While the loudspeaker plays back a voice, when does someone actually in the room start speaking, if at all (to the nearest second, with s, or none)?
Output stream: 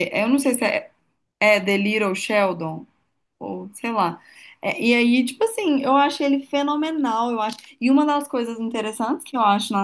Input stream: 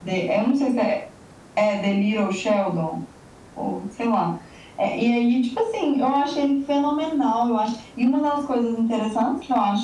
none